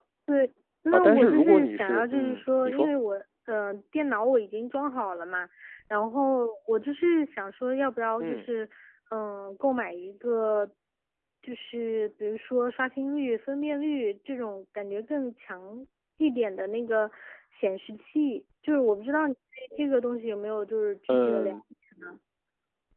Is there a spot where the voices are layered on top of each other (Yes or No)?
Yes